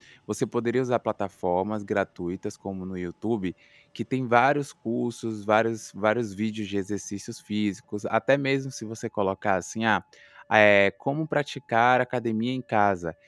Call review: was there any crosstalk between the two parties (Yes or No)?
No